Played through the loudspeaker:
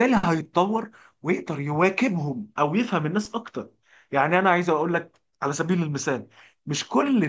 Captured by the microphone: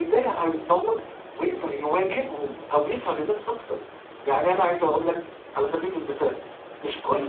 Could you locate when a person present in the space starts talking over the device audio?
none

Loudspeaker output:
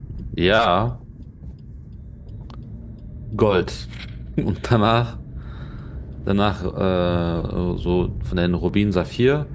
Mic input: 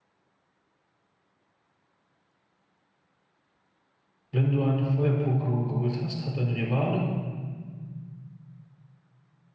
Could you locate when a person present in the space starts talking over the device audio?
4 s

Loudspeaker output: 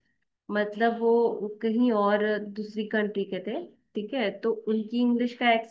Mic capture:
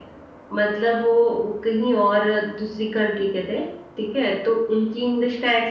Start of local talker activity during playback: none

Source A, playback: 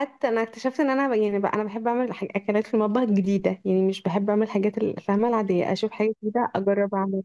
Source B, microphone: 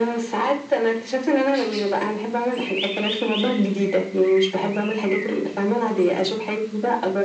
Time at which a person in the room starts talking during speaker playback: none

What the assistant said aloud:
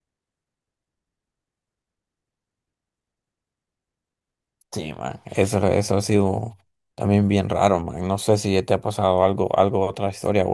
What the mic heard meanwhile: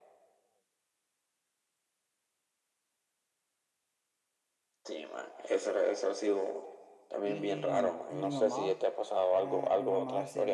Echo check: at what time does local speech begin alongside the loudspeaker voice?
7 s

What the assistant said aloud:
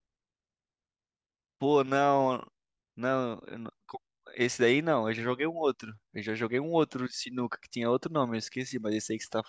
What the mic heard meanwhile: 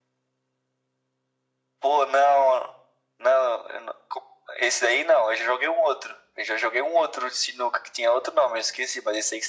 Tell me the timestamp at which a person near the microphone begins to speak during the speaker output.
none

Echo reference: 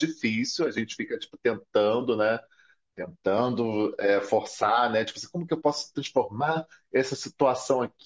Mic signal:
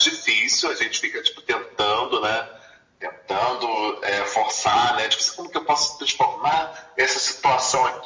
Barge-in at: none

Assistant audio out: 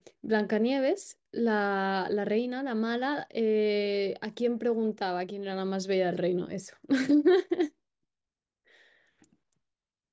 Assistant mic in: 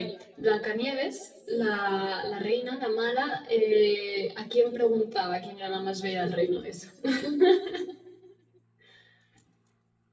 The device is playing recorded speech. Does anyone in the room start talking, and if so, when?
none

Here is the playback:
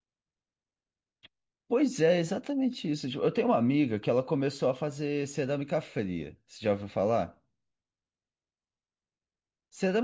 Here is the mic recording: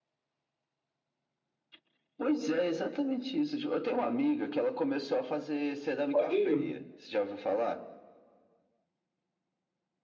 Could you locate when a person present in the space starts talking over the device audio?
6 s

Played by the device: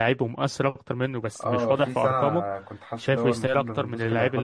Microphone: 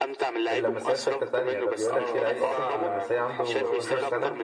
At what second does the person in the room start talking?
1 s

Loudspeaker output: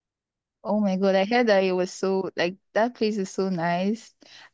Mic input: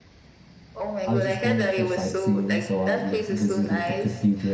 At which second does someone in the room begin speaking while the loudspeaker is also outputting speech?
1 s

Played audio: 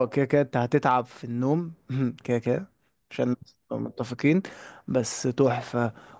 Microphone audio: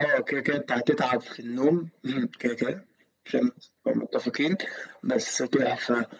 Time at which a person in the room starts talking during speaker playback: none

